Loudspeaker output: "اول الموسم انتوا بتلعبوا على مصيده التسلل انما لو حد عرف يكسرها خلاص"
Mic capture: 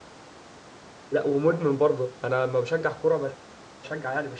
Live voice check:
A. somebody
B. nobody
A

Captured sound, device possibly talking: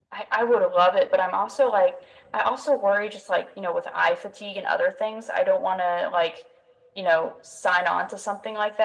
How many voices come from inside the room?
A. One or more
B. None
B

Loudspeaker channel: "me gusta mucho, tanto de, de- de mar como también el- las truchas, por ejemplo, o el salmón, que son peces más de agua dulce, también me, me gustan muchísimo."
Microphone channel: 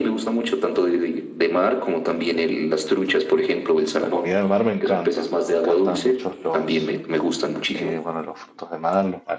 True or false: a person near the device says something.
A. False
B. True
B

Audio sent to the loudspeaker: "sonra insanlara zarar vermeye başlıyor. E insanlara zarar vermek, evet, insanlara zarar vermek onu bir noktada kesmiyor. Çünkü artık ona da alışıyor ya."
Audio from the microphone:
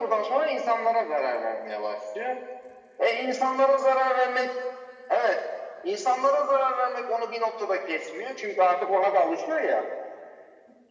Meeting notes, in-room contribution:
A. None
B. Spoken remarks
A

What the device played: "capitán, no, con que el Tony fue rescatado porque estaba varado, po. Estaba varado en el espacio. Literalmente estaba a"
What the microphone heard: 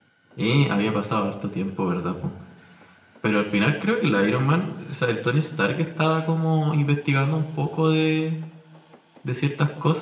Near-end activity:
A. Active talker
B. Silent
A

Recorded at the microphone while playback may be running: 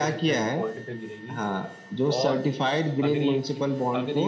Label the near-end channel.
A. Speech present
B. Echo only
A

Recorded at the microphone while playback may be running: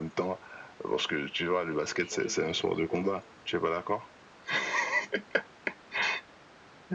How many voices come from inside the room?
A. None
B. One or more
B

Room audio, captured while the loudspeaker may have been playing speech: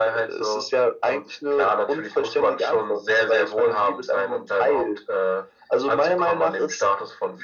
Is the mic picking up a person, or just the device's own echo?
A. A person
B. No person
B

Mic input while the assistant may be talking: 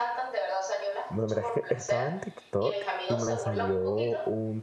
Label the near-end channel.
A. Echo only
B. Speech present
B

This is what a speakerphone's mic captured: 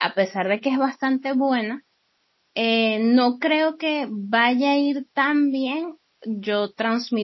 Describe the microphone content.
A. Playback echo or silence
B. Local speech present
B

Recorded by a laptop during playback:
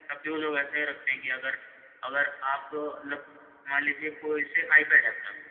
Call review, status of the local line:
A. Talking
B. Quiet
B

